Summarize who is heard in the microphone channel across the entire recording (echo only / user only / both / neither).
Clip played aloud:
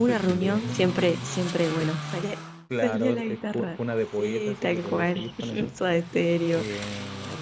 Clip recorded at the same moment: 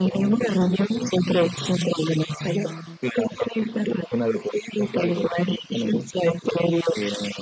echo only